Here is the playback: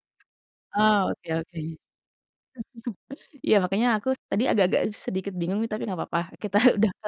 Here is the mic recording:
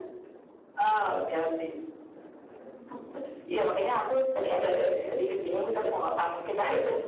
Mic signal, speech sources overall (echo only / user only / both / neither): echo only